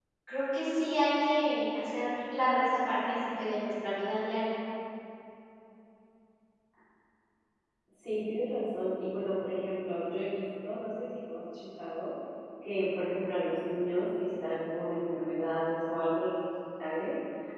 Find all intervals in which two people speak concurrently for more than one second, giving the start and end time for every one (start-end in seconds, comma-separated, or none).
none